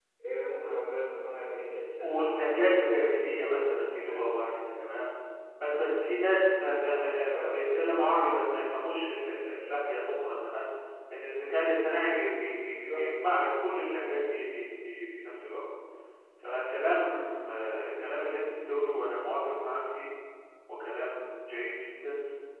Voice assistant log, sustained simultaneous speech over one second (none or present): present